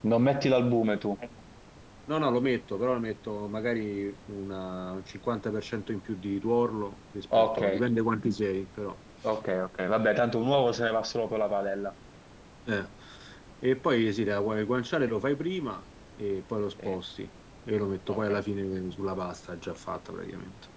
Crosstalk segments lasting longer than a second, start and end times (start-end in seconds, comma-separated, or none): none